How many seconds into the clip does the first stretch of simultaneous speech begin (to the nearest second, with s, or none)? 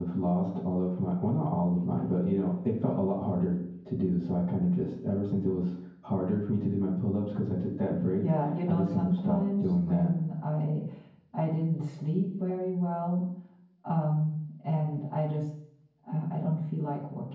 8 s